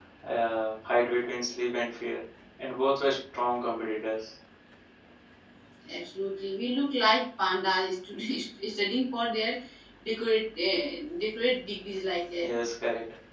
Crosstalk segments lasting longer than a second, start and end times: none

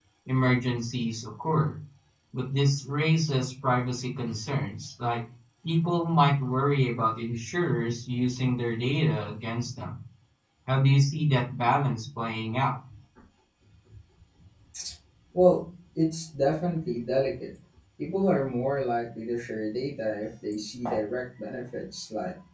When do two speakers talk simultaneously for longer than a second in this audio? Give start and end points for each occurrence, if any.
none

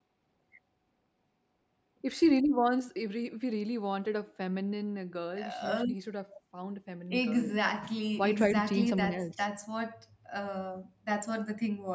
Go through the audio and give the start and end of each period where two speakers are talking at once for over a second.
8.2-9.4

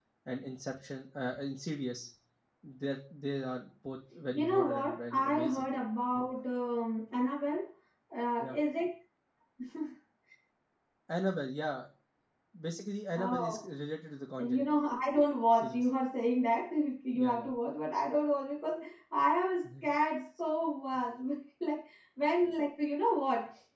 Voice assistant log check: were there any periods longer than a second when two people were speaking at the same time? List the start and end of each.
4.3-5.7

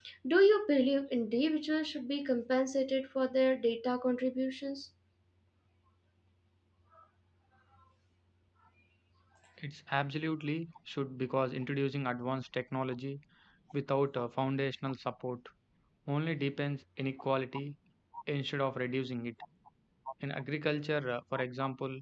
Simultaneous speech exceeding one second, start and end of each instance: none

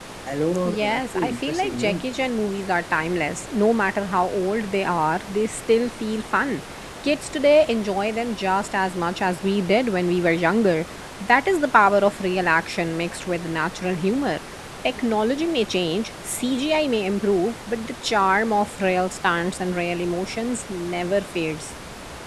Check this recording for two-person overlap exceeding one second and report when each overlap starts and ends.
0.7-2.0

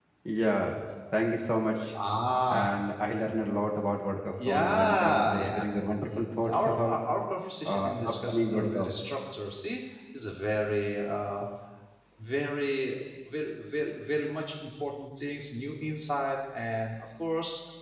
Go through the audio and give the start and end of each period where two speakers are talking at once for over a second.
4.5-5.7, 7.7-8.9

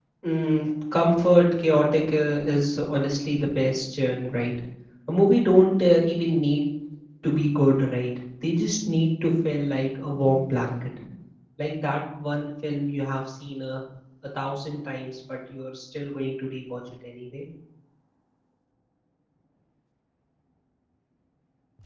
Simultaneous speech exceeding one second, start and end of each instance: none

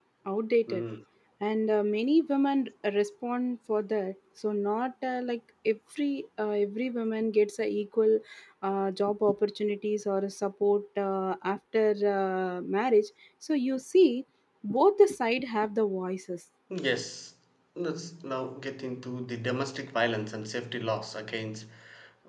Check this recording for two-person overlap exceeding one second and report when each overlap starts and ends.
none

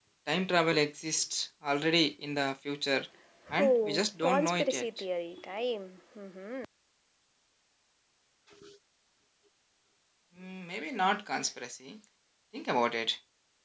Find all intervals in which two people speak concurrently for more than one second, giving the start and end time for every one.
3.6-4.8

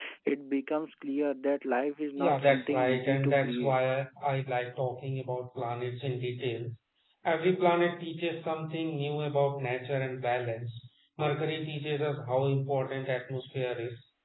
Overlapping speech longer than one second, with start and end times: 2.2-3.8

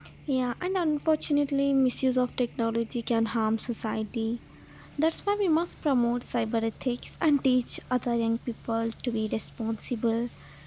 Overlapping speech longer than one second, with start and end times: none

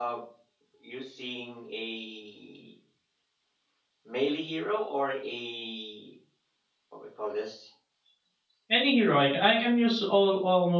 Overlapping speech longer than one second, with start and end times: none

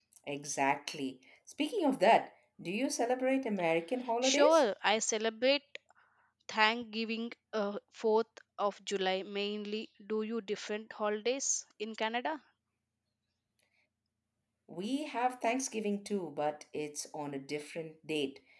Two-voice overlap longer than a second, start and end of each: none

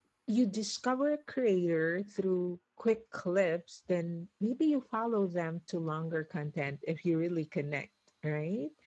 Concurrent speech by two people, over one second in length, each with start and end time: none

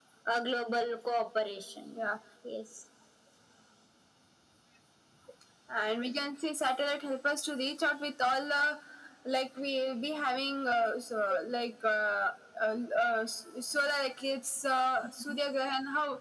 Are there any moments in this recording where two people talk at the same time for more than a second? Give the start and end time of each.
none

